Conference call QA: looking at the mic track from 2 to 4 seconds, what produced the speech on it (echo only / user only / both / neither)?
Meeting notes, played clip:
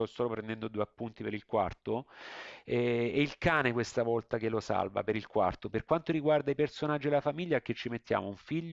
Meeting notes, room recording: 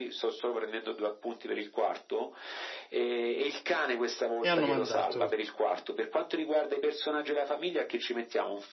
echo only